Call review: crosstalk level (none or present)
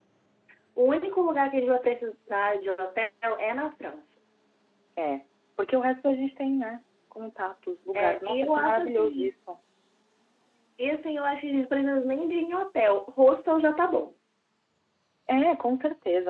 present